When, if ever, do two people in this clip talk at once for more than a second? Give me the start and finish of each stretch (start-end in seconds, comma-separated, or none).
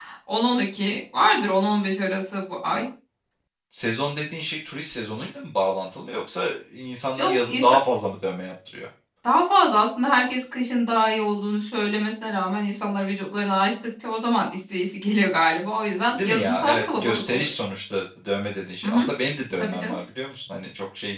16.2-17.5